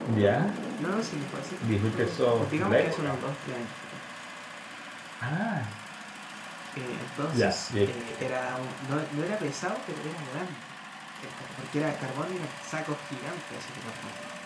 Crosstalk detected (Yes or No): Yes